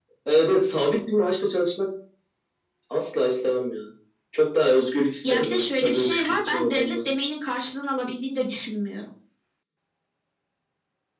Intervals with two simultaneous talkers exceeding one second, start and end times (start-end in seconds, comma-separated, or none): 5.3-7.0